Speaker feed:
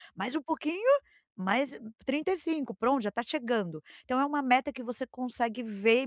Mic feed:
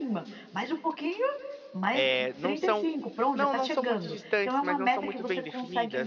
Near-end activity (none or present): present